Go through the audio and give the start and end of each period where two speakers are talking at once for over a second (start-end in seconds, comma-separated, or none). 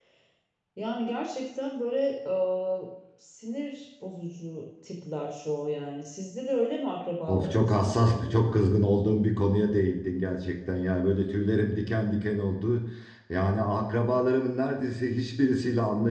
7.3-8.6